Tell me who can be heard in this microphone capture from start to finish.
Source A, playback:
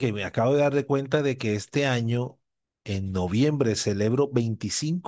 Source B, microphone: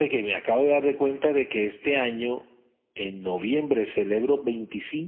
echo only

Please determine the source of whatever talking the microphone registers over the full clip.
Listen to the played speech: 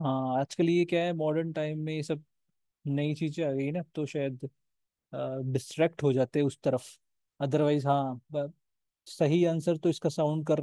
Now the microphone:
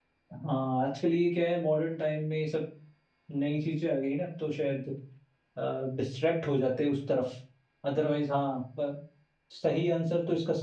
echo only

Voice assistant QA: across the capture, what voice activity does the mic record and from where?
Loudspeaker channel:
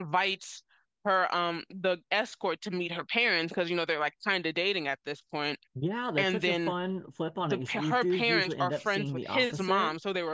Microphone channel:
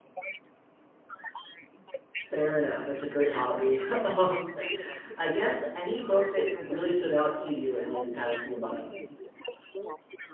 both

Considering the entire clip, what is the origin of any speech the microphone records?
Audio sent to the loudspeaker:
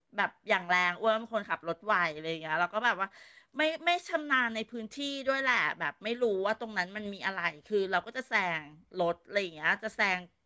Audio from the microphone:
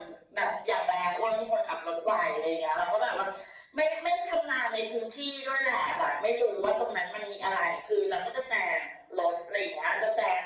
echo only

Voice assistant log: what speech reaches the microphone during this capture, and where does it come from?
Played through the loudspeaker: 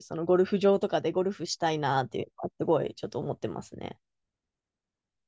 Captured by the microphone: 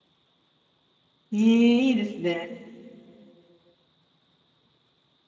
user only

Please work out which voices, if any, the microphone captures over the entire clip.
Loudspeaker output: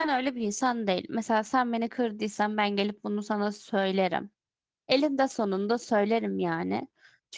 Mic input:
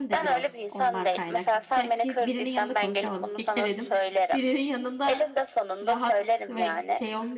both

